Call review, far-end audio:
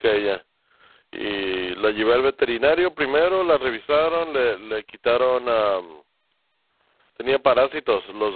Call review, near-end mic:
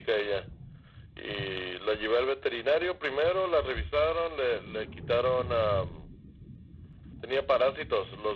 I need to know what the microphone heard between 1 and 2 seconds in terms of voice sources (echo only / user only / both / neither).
echo only